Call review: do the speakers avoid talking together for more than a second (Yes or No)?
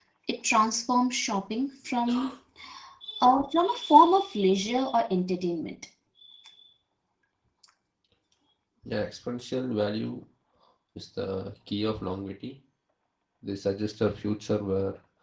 Yes